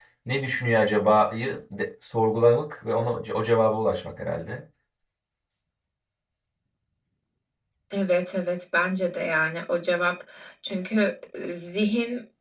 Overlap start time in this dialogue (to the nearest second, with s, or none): none